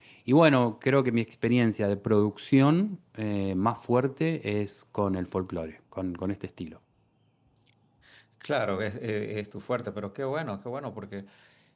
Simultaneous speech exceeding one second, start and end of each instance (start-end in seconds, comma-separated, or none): none